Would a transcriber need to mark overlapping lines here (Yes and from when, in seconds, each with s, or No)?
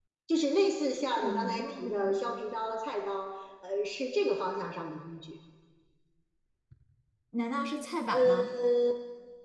Yes, from 1.2 s